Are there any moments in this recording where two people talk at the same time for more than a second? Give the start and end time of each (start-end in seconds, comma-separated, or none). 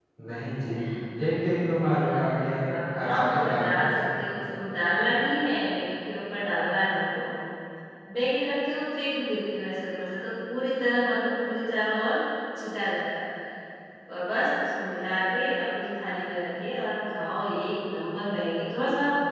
2.7-4.2